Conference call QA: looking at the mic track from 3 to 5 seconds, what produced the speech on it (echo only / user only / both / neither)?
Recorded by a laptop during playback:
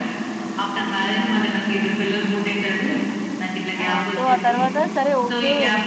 both